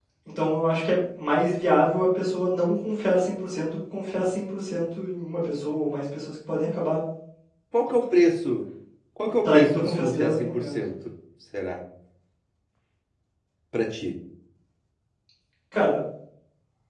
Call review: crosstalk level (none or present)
present